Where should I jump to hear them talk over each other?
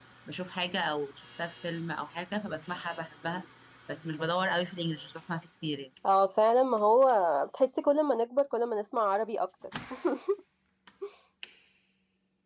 none

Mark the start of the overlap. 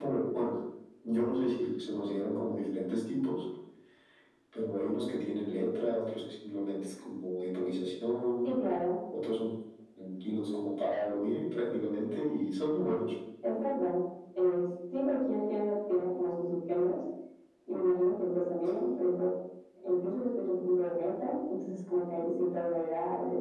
none

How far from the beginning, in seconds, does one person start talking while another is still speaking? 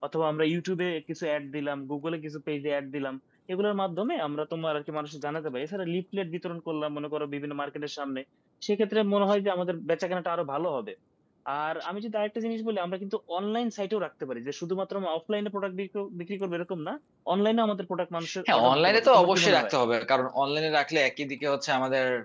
18 s

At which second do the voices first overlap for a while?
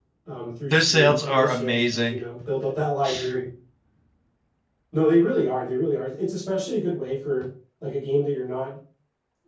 1 s

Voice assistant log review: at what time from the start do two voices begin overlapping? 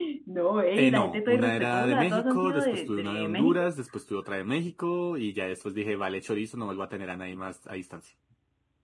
1 s

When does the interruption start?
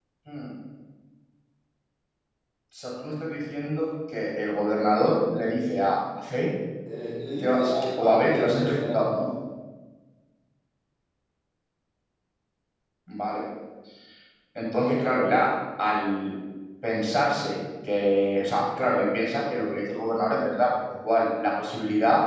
7 s

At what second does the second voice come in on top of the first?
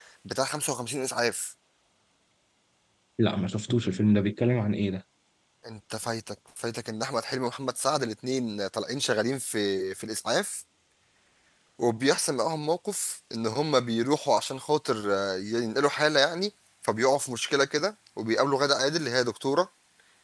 none

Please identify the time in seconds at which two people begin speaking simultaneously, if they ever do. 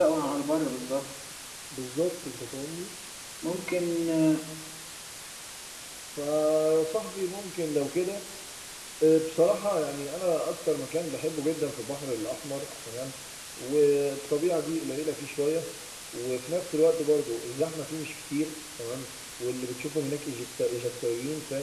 none

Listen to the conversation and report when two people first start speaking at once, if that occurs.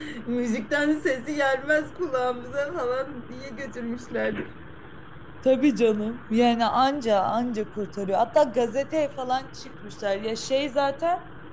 none

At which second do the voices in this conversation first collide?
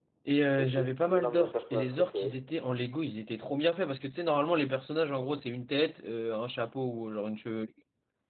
1 s

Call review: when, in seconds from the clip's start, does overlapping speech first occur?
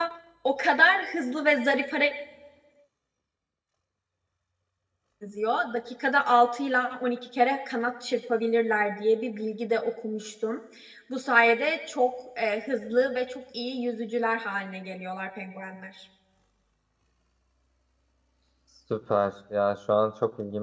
none

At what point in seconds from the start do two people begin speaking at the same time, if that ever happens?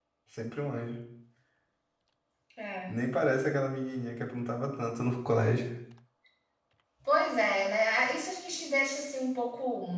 none

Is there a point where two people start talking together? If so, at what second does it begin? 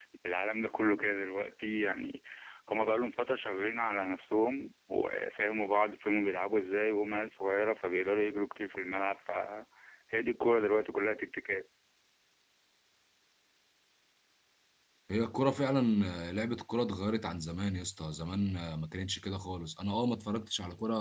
none

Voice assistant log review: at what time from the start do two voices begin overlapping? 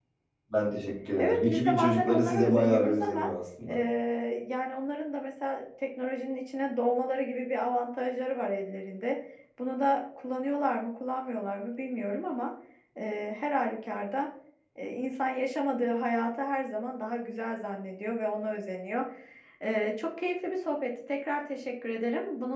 1 s

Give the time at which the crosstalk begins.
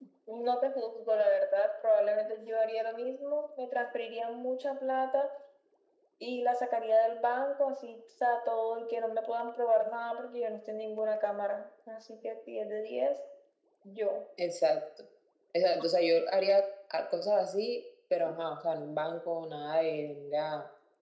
none

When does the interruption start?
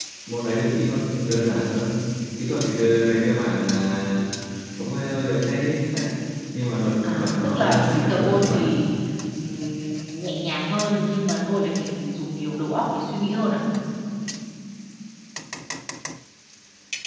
7 s

